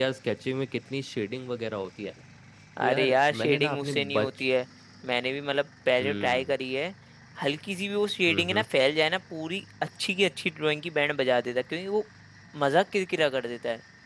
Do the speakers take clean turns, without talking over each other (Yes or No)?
No